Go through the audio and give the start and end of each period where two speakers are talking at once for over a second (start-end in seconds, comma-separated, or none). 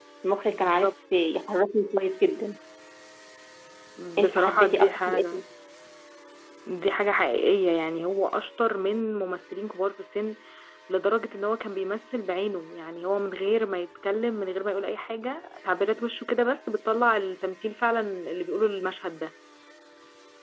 4.2-5.4